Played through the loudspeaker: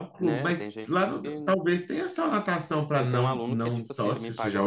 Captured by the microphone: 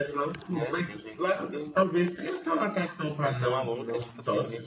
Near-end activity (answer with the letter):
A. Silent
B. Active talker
A